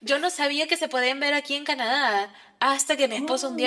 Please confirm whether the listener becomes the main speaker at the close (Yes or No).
No